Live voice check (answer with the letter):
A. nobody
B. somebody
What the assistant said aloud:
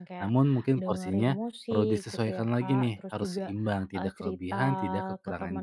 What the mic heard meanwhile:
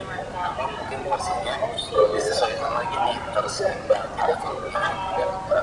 A